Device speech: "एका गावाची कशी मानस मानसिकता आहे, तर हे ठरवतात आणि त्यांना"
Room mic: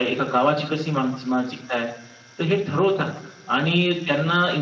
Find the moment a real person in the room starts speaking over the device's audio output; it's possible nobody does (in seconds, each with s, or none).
none